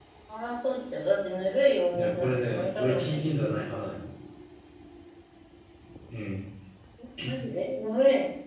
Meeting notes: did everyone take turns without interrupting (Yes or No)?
No